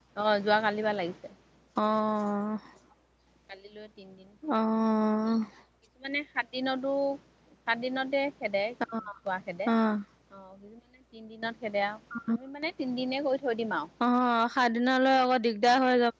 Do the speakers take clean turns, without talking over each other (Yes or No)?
Yes